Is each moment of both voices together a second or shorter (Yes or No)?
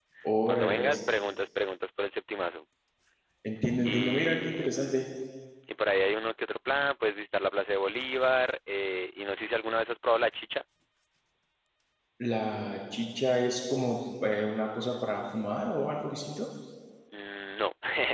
No